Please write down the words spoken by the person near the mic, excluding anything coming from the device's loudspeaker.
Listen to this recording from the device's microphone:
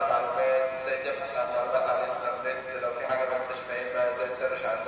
none

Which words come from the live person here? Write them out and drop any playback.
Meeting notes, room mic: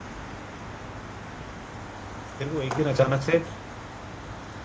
फिर वो एक दिन अचानक से

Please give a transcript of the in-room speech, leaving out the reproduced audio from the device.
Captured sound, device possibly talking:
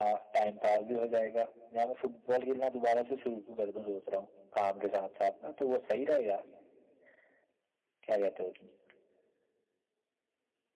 none

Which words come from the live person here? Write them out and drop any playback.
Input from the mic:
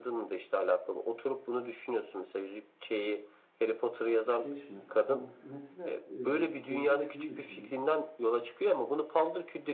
65 mi? Ha, mesela e, geçen şunu düşündüm.

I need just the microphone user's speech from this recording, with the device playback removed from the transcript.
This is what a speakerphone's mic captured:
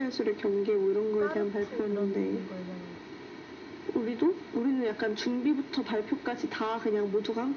까르푸 이런 거 얘기하는 거지.

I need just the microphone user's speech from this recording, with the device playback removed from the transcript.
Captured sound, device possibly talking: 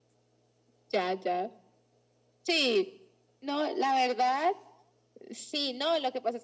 none

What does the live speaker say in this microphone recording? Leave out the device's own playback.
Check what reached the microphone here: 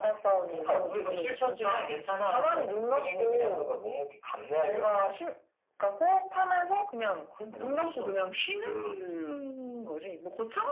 none

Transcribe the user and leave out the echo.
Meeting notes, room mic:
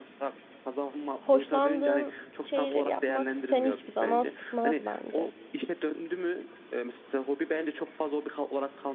hoşlandığın şeyleri yapmak seni hiçbir zaman sıkmaz bence.

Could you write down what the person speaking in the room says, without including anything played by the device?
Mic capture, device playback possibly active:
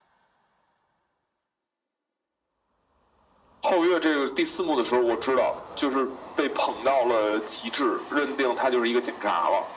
none

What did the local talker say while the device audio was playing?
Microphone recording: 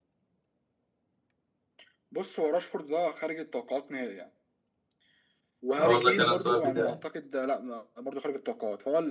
اقول لك انا السؤال بتاعي

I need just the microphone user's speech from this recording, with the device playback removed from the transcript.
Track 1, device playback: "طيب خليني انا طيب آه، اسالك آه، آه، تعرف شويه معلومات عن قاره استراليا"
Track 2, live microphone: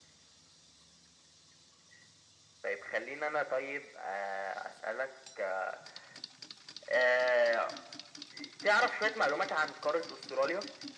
none

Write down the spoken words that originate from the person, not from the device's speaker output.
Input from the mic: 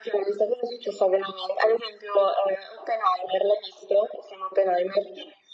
none

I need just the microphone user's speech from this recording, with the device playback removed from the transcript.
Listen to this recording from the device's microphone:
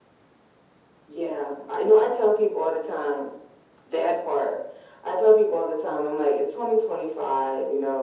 none

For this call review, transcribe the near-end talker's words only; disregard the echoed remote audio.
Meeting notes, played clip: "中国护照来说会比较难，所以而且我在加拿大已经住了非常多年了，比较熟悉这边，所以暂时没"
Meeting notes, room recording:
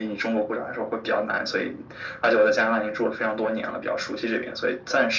none

